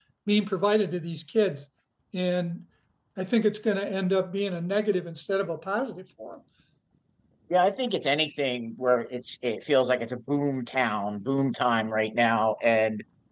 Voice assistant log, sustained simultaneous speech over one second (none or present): none